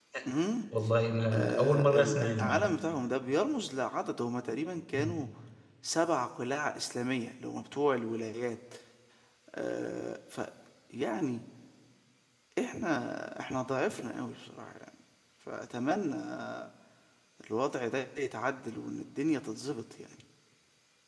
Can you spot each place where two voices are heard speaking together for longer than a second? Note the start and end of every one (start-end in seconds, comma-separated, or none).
1.3-2.8